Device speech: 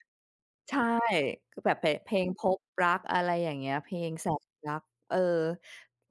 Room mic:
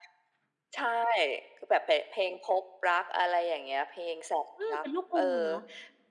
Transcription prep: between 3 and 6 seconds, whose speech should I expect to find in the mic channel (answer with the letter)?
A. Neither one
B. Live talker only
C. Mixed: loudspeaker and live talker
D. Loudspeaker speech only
C